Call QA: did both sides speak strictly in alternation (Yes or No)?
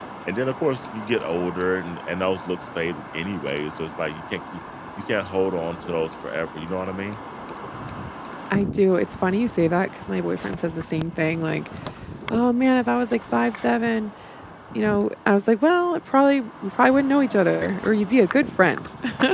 Yes